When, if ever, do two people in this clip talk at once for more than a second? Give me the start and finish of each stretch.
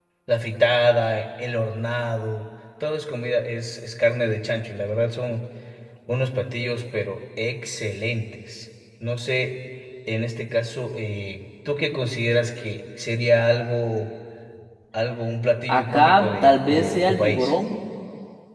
15.7-17.6

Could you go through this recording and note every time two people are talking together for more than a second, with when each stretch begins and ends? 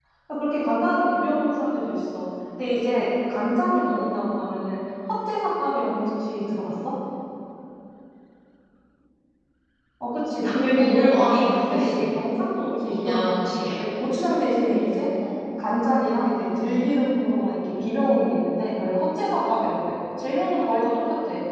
10.8-12.1

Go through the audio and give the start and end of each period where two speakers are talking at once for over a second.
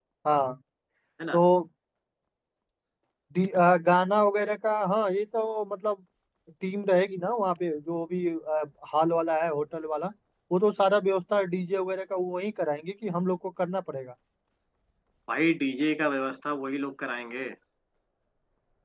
none

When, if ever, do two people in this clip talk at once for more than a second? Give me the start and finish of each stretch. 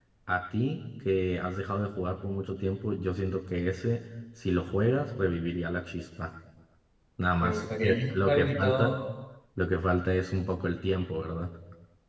7.4-8.9

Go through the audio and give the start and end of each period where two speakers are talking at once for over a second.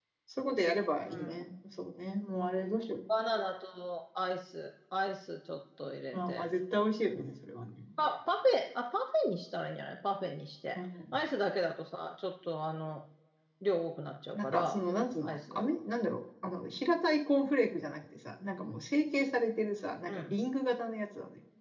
none

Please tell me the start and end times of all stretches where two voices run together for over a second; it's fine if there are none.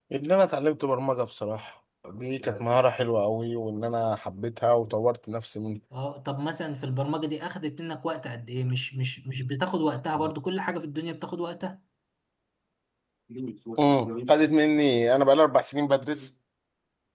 none

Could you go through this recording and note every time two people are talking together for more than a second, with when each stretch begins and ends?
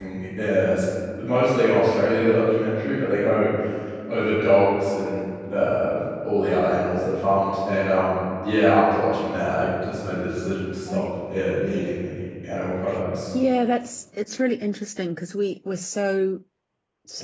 none

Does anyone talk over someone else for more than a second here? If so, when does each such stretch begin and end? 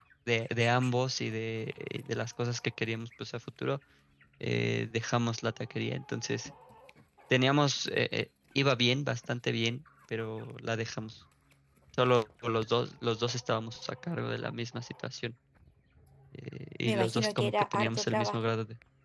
16.8-18.4

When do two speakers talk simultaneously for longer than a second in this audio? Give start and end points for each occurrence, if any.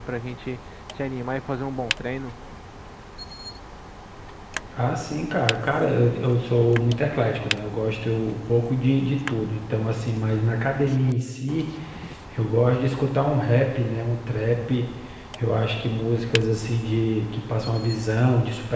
none

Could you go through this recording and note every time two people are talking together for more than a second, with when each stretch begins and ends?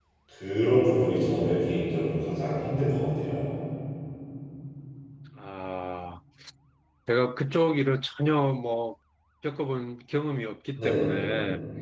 none

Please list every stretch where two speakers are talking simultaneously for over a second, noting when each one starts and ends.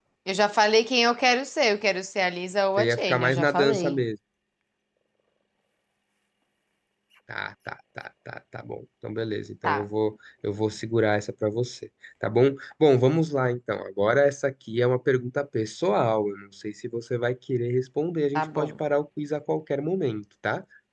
2.8-4.0

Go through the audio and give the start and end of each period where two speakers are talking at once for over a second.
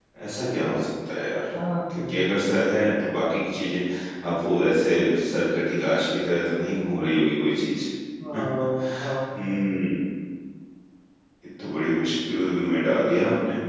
8.3-9.7

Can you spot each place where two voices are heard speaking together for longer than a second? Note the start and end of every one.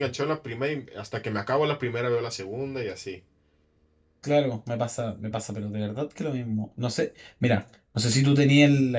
none

